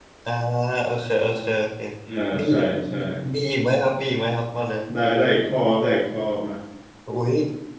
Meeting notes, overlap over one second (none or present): none